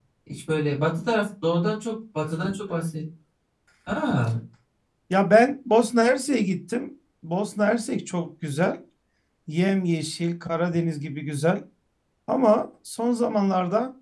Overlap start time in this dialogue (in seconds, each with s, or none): none